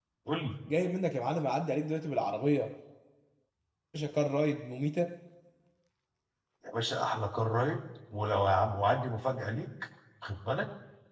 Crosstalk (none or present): none